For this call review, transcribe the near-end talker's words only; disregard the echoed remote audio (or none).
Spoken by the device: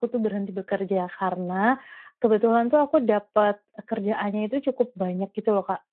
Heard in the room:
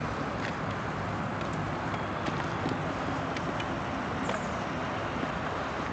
none